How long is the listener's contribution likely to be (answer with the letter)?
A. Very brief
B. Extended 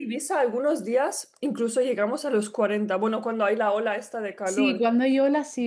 B